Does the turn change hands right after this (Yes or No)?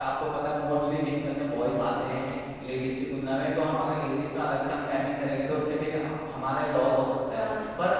No